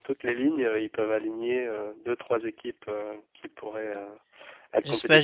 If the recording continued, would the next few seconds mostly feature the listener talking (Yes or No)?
Yes